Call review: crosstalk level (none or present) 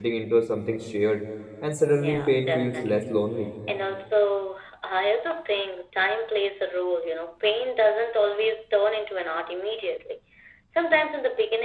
present